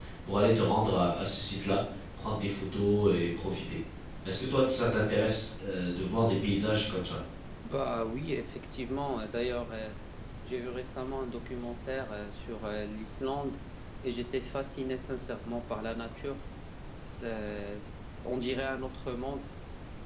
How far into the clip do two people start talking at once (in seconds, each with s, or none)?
none